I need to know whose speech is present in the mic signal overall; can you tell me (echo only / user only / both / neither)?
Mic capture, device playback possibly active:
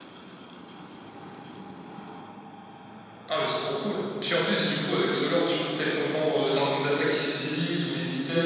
echo only